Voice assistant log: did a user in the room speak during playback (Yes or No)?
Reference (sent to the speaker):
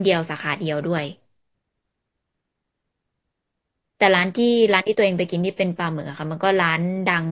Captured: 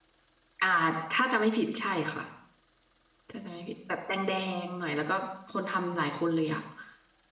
Yes